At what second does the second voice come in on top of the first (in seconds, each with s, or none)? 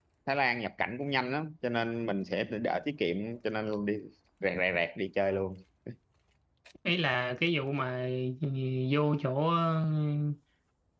none